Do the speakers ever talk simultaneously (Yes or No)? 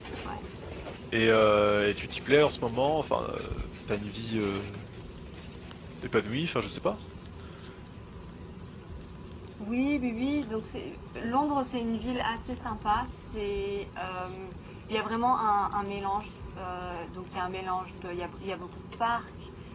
No